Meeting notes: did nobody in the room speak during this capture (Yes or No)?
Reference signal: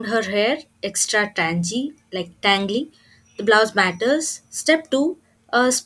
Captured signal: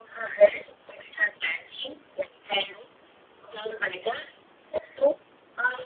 Yes